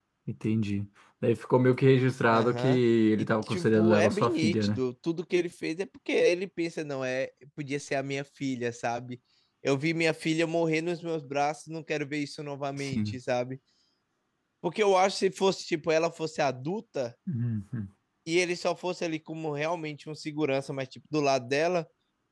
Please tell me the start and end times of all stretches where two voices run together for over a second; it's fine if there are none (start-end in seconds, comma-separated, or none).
3.2-4.8